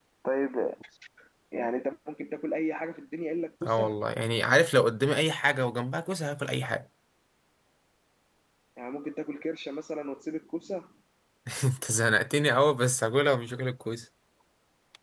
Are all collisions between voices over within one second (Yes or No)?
Yes